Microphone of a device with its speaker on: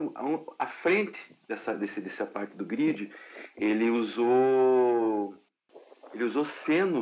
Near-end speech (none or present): none